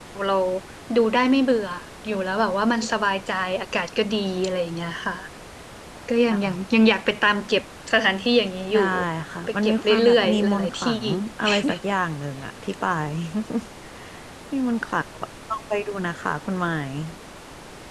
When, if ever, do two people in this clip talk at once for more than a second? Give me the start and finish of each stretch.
9.5-10.9

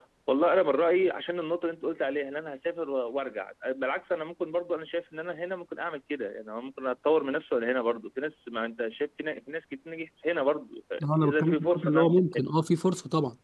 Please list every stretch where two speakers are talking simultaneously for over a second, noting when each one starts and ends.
11.1-12.5

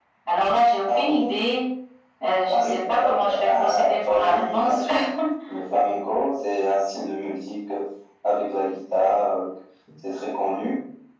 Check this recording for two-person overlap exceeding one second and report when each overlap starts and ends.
2.5-4.8

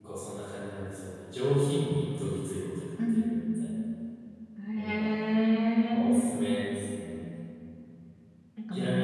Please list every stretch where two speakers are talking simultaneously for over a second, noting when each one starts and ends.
none

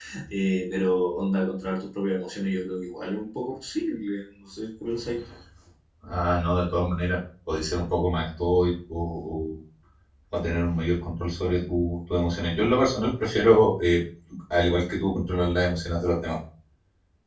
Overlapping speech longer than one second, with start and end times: none

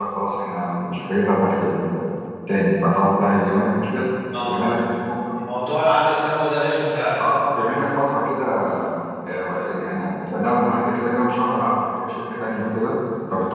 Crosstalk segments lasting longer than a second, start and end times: none

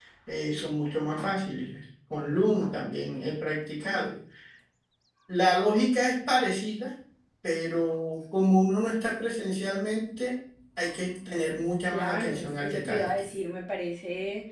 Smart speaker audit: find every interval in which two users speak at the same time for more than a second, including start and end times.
11.8-13.1

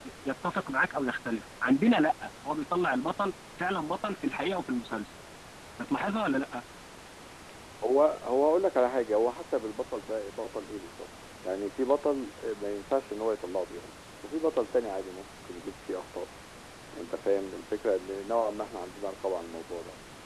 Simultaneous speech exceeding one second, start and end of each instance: none

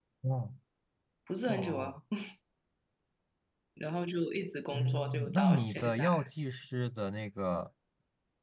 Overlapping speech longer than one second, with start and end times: 4.7-6.1

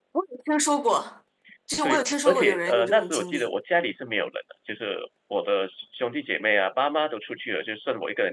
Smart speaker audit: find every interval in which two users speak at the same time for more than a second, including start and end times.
1.8-3.5

